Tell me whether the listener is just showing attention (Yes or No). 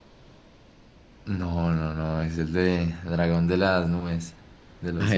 No